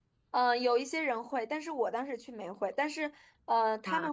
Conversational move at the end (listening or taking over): listening